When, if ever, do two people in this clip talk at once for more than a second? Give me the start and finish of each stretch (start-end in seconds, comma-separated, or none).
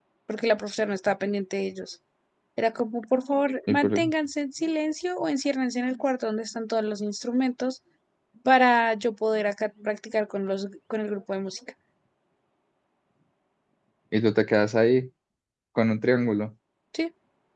none